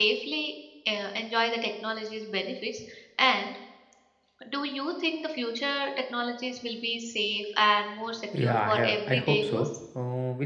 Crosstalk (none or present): present